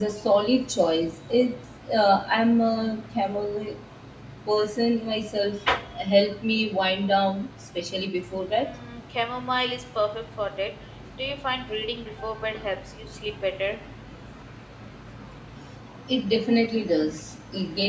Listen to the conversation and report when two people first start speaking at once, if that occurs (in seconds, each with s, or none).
none